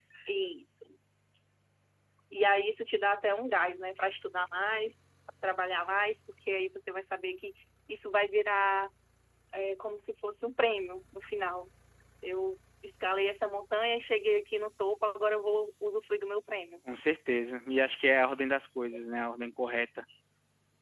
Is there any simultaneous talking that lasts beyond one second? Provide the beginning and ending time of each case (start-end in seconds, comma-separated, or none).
none